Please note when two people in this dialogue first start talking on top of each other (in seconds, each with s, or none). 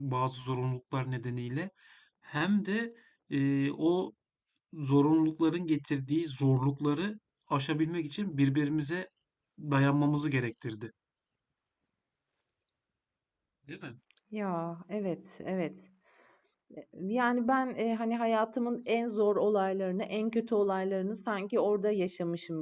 none